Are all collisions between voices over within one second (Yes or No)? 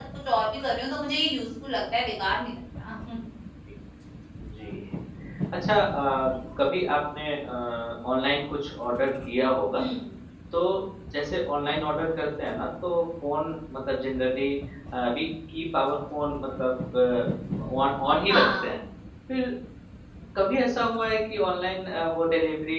Yes